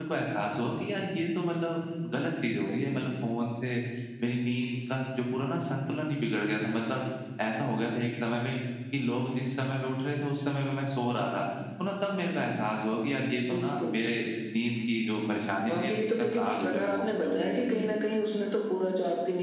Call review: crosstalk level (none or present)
present